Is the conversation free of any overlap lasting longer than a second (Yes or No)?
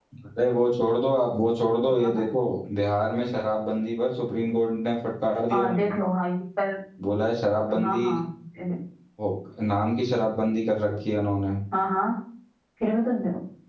Yes